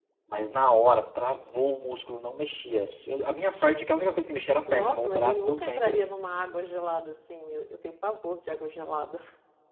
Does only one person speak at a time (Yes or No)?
No